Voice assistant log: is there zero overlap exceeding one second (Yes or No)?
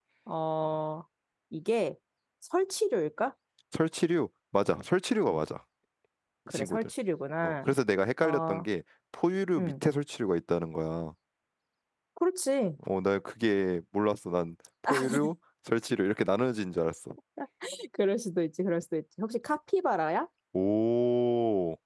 Yes